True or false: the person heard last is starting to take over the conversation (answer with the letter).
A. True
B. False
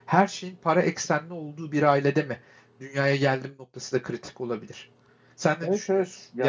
A